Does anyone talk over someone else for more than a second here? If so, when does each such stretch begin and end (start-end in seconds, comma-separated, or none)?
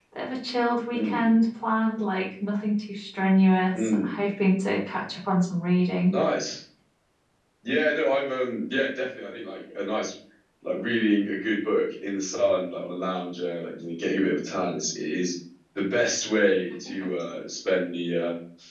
none